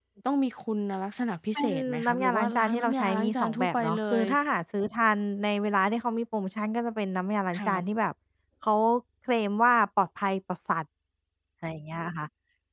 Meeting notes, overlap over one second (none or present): present